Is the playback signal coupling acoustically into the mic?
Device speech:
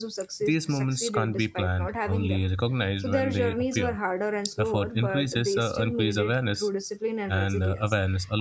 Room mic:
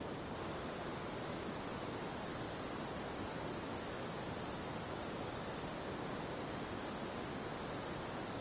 No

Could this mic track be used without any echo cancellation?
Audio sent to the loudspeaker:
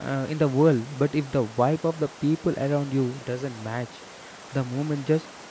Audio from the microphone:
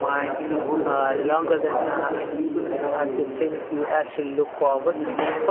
No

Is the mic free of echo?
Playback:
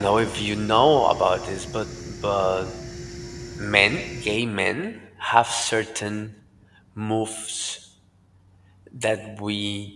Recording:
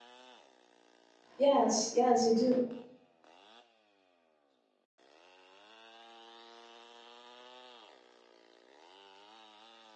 Yes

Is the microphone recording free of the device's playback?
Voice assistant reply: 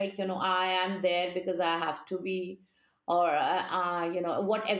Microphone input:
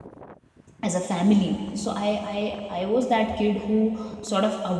Yes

